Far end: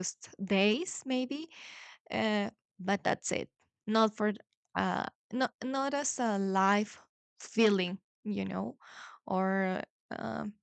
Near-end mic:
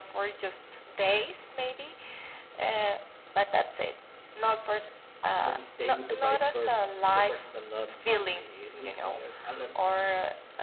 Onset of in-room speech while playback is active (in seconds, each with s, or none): 5.3 s